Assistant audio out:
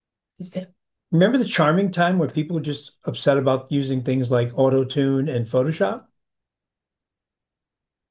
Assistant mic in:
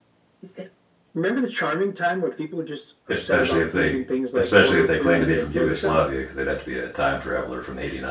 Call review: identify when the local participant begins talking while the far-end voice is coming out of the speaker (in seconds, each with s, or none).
3.1 s